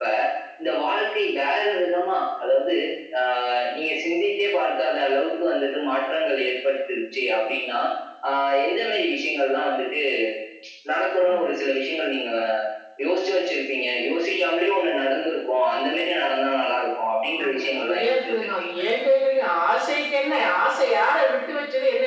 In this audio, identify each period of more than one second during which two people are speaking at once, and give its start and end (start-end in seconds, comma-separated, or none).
17.3-18.8